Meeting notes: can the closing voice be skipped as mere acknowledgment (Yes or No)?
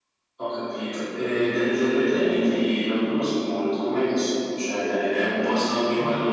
Yes